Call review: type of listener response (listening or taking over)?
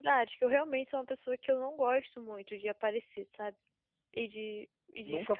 listening